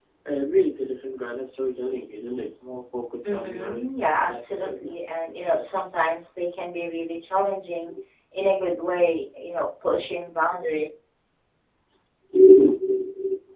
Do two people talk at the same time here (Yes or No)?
Yes